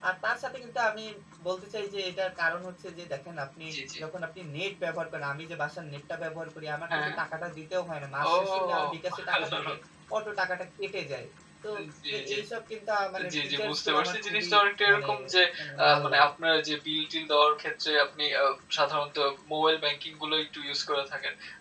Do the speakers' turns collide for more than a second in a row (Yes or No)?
Yes